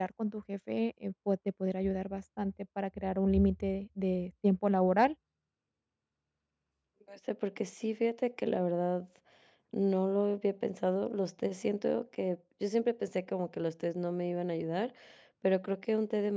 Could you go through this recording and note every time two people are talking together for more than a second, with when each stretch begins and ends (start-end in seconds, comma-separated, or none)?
none